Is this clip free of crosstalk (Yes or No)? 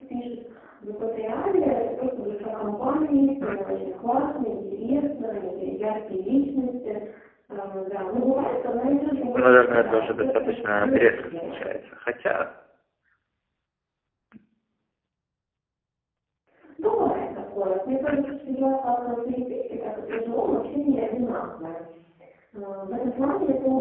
No